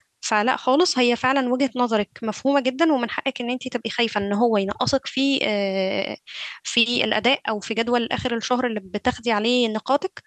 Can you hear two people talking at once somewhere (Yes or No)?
No